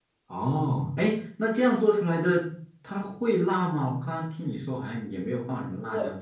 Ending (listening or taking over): taking over